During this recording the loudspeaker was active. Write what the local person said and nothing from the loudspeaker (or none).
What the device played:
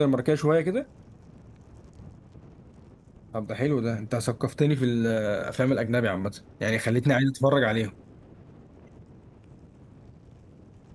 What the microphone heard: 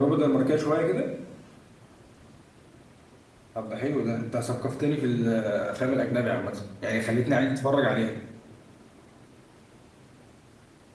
none